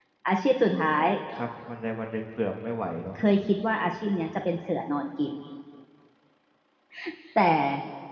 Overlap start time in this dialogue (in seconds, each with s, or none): none